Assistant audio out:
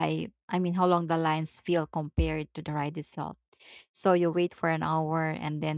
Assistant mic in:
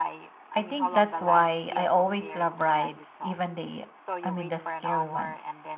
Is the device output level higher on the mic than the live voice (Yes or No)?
No